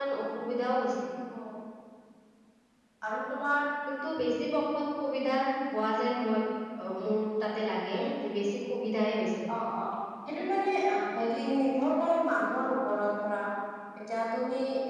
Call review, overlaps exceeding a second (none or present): none